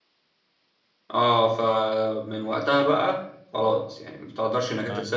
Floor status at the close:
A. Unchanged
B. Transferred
A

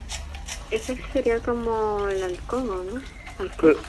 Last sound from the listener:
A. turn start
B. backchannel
A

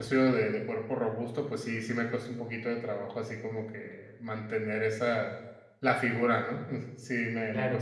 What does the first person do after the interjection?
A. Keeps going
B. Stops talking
B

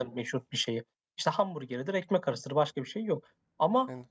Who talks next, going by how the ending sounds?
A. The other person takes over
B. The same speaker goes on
B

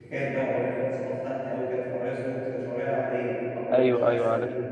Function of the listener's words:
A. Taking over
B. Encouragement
A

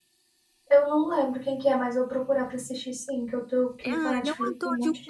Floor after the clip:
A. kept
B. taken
B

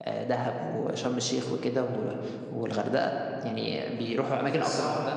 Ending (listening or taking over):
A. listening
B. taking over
B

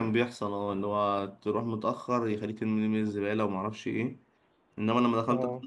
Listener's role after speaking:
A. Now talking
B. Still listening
B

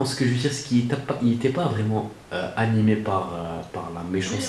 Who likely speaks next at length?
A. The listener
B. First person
A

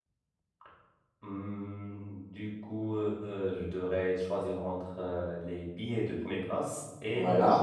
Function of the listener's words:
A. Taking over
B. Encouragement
A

